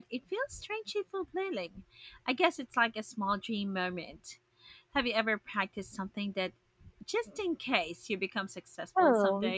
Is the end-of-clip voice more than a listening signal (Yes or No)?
Yes